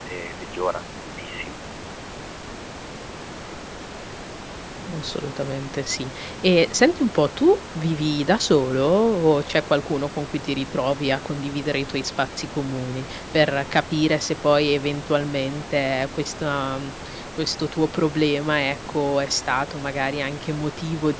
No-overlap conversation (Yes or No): Yes